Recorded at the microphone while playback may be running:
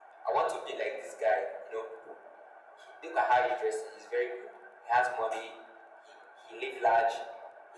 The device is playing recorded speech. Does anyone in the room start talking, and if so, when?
none

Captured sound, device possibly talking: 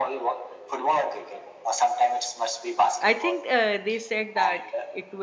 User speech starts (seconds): 3 s

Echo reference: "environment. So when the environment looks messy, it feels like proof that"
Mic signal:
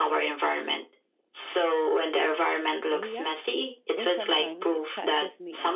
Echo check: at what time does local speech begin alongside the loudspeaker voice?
3 s

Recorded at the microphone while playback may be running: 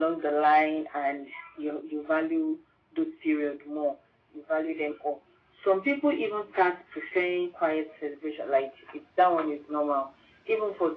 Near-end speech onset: none

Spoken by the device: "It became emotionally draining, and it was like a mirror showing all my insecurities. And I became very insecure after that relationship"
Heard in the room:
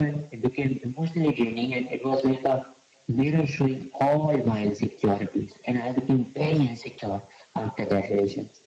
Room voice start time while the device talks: none

